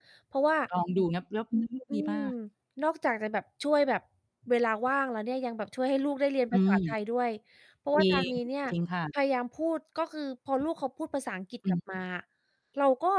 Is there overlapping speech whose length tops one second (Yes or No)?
No